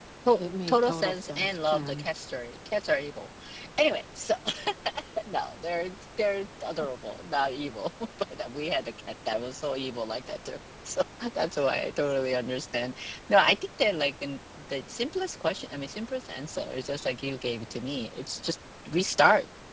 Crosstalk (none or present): present